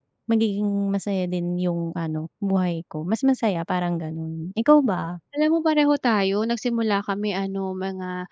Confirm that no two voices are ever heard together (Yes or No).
Yes